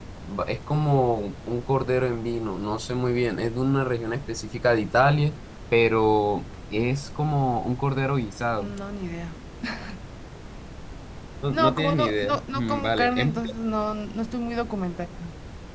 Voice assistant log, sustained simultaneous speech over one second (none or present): present